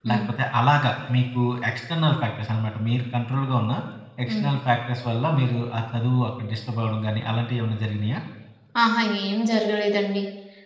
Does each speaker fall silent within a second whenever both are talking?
Yes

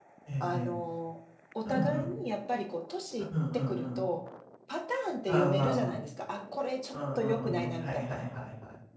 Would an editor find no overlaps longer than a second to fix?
No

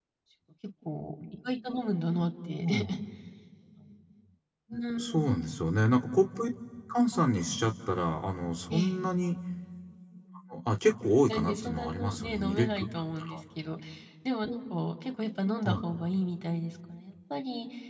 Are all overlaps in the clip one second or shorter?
No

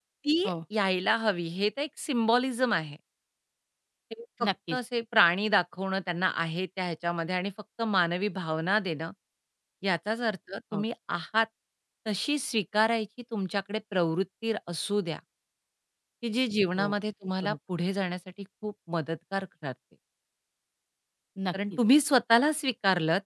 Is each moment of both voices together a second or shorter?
Yes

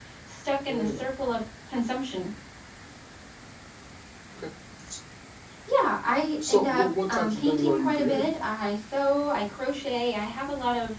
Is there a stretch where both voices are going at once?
Yes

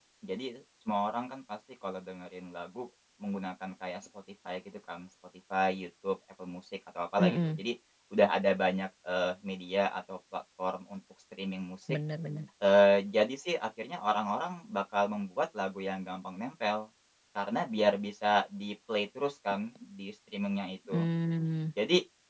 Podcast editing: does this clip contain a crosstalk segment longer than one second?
No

